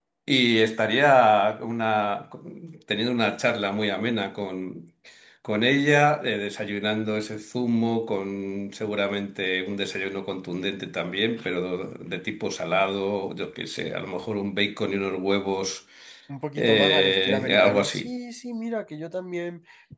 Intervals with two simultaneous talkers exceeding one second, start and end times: 16.6-18.1

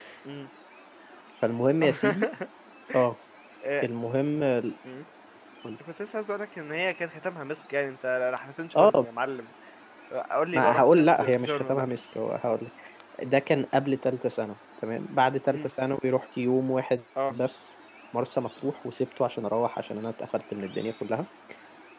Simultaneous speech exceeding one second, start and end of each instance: 10.5-11.8

